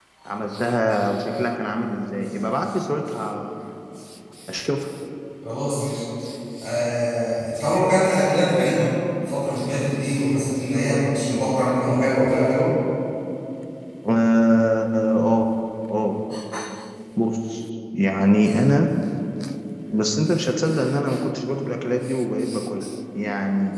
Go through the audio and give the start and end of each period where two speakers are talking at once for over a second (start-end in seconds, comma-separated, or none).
none